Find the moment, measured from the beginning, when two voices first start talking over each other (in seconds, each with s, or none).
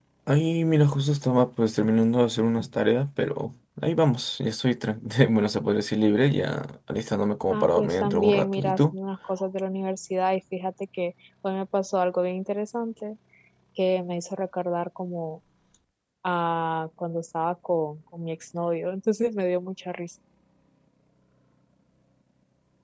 7.5 s